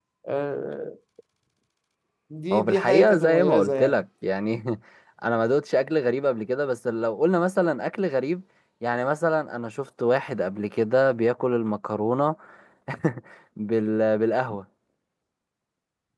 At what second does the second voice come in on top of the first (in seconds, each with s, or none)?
2.5 s